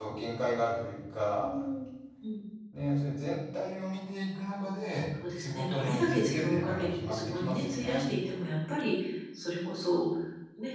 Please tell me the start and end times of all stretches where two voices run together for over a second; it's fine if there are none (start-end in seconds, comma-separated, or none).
5.4-8.0